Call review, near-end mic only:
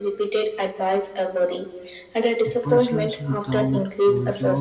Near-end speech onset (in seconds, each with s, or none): 2.5 s